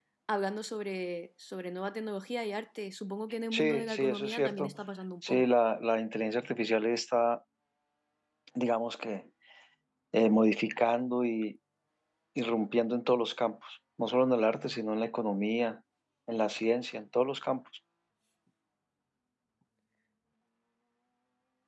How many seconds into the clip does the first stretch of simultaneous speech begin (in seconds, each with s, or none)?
3.5 s